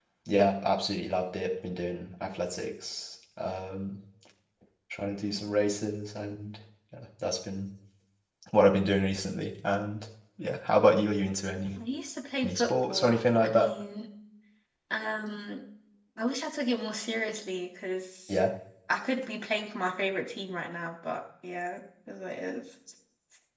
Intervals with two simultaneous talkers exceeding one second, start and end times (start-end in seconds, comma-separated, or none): 12.4-13.7